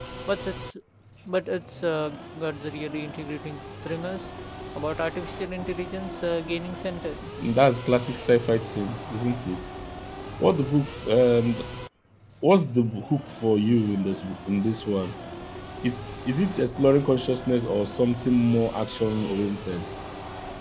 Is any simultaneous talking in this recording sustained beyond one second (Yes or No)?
No